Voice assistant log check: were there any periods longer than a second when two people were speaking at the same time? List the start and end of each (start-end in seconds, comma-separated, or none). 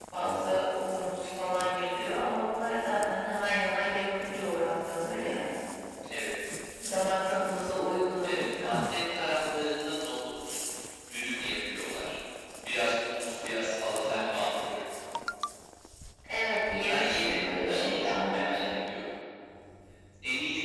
16.8-18.7